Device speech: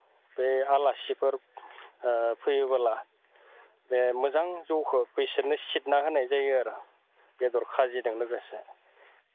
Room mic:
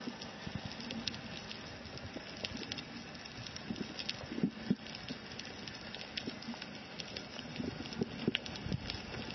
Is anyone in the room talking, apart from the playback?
No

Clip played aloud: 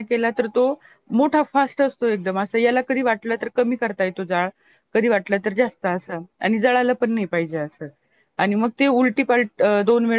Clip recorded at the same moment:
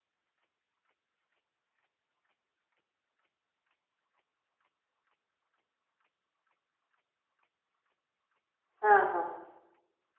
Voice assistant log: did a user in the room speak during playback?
Yes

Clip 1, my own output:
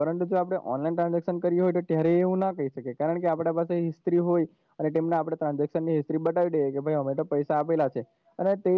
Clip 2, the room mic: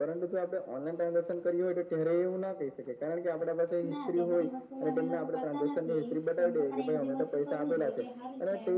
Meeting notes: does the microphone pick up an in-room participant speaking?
Yes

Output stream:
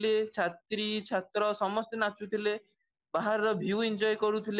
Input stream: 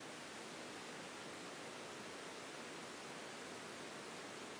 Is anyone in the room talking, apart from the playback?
No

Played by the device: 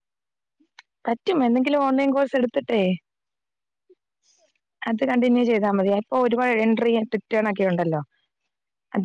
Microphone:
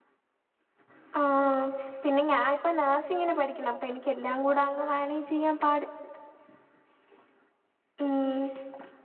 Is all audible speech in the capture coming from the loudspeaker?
No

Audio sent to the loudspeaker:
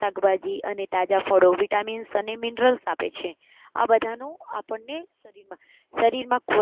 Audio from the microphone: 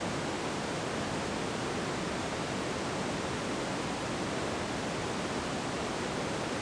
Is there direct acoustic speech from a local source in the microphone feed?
No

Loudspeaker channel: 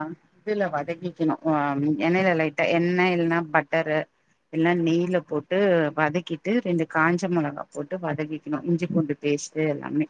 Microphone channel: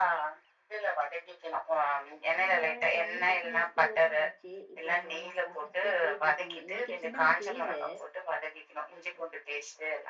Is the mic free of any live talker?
No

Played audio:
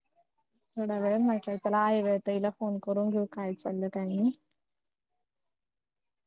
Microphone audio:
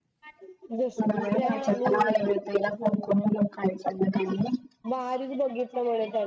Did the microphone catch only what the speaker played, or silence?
No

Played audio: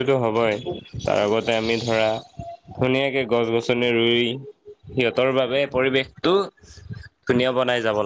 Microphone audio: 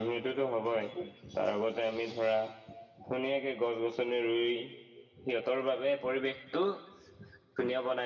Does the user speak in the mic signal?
No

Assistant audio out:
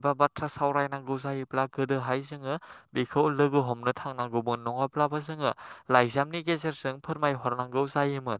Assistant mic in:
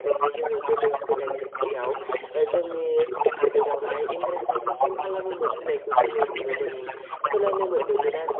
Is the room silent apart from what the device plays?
No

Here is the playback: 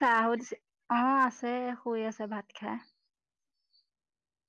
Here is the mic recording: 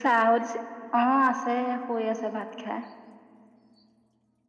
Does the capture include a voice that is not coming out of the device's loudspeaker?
No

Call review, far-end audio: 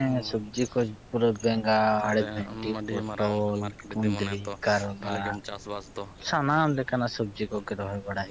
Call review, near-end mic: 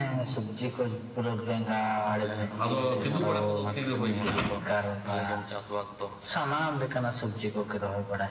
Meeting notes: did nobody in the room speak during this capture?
No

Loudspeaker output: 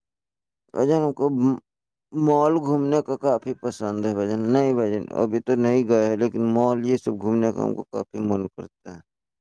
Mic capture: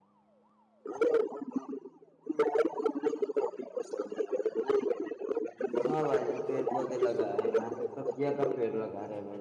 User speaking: Yes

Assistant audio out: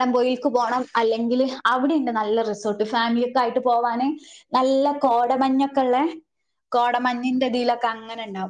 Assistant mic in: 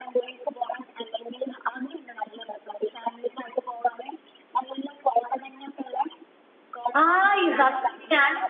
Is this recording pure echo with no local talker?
No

